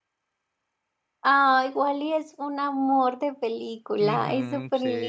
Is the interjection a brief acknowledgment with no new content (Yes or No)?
No